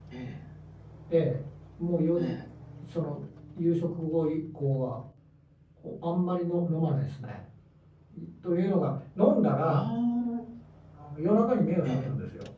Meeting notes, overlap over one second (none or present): none